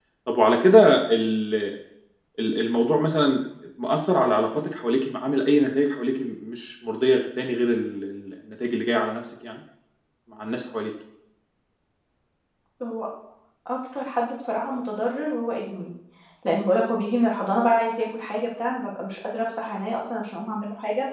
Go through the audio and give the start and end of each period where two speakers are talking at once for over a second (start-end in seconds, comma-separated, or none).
none